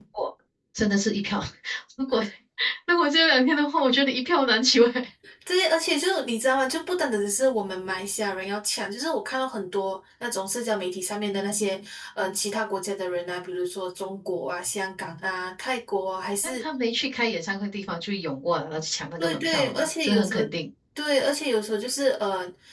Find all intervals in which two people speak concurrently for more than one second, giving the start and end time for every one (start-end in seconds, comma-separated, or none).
19.2-20.4